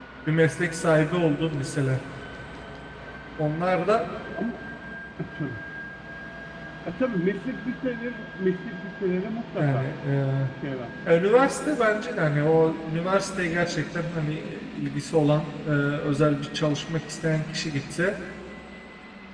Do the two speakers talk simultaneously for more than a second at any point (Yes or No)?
No